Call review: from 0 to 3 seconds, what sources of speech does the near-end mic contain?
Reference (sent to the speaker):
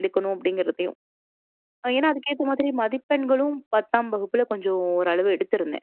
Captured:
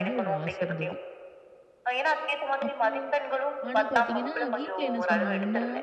both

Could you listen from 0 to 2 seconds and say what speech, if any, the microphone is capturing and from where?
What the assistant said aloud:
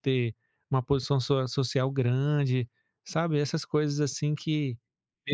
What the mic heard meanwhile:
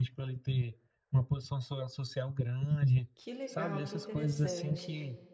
echo only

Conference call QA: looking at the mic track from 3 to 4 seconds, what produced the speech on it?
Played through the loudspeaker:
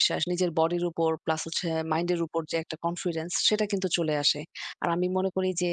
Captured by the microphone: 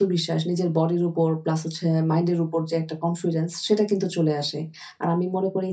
echo only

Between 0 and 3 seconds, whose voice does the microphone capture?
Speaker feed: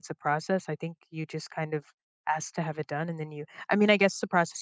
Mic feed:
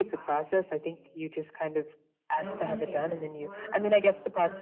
both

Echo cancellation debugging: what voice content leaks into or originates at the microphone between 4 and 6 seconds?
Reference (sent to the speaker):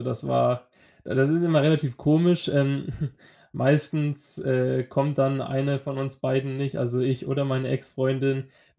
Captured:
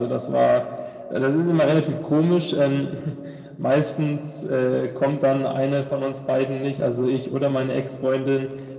echo only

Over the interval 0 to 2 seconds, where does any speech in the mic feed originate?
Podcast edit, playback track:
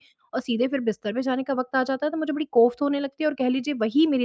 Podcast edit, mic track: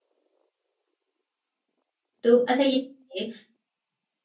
neither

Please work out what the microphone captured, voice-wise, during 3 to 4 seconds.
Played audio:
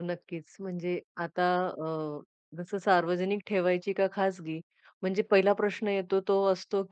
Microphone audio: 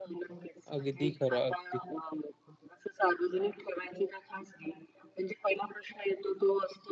echo only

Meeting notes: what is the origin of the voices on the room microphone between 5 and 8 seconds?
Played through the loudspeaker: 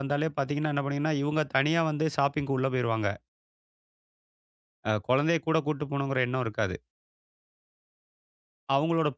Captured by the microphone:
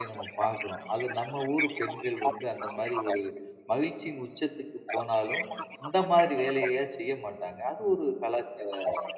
both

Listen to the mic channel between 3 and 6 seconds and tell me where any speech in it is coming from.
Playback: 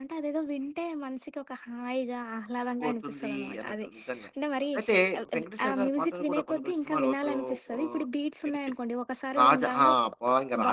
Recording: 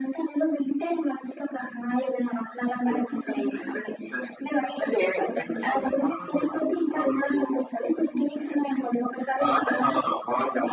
echo only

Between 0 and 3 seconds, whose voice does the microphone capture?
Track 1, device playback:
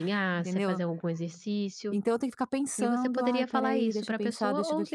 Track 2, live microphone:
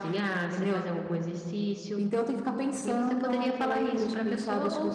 echo only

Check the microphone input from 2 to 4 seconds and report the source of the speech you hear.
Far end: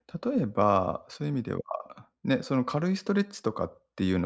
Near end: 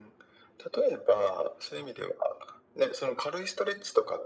echo only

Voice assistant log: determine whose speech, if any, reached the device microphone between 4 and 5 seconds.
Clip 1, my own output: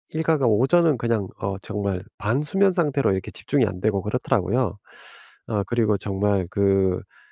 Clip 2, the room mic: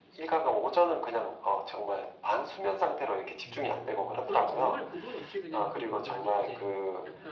both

